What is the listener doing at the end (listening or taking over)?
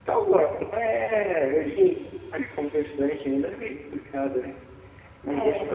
listening